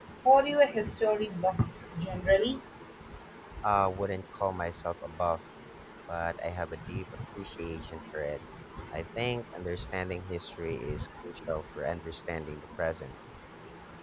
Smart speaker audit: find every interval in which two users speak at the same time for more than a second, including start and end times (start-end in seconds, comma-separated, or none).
none